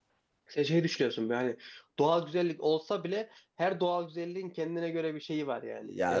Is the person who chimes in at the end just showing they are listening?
No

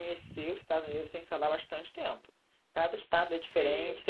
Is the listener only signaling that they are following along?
Yes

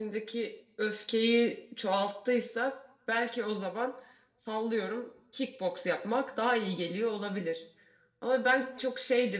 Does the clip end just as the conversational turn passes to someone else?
No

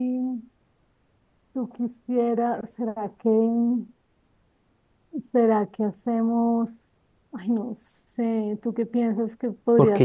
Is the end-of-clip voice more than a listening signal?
Yes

